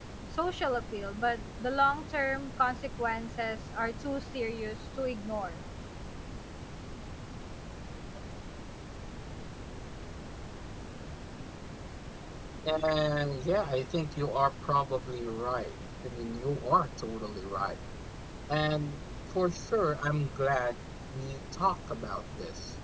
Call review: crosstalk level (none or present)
none